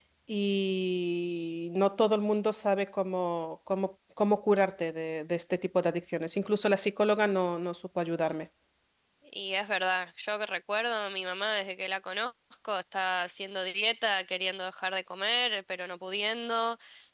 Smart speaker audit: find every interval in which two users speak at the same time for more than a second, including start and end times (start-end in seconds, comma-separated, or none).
none